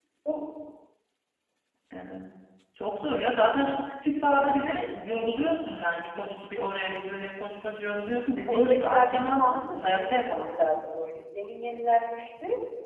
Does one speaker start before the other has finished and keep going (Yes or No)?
Yes